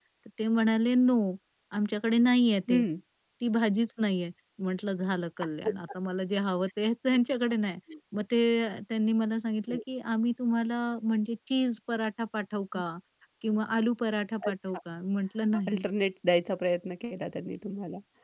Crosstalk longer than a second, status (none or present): none